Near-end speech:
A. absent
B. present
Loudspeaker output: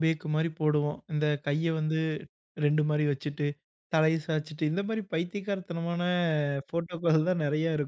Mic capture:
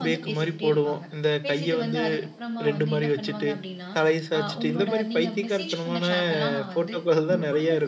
B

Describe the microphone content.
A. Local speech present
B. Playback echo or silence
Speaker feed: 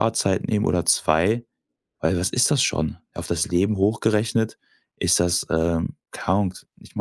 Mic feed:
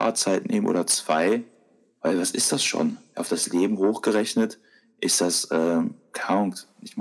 B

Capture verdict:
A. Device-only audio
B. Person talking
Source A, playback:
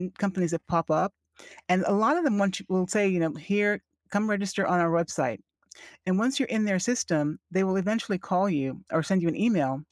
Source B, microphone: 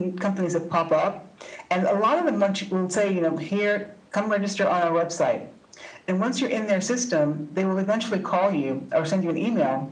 A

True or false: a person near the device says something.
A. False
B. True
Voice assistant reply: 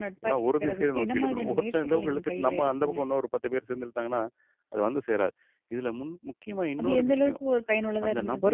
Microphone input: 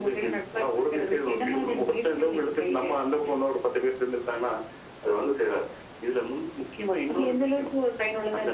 A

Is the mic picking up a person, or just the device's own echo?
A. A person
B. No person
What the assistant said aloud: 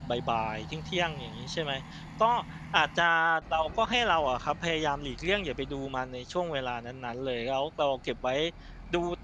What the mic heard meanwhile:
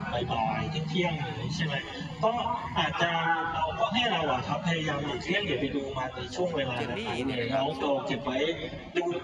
A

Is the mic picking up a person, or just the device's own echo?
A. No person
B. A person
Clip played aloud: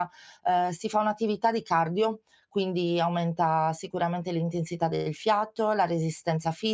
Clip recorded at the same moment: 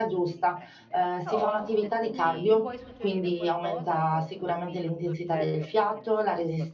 B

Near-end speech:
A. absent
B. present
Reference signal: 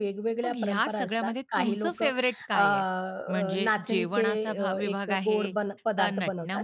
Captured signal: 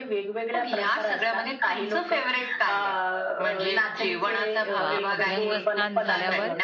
B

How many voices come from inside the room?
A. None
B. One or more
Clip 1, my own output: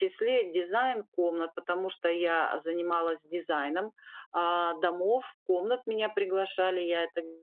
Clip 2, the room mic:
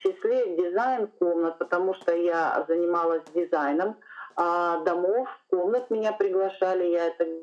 A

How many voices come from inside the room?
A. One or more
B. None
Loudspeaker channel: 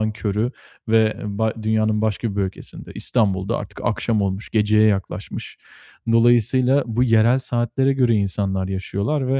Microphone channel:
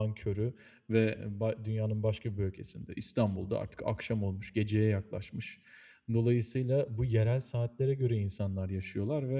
B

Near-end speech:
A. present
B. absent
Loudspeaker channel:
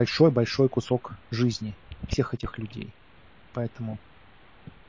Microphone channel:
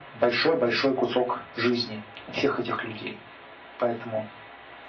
B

